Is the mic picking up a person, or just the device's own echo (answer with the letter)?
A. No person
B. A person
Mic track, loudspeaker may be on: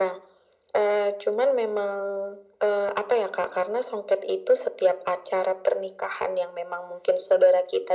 A